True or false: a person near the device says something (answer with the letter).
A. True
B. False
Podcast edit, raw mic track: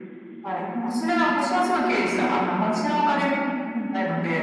B